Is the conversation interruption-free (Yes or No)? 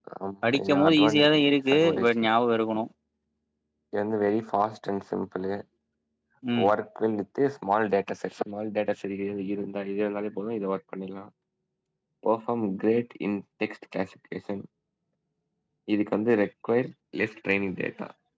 No